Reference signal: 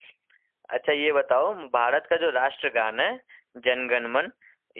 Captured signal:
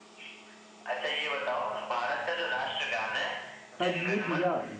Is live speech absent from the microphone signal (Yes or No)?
No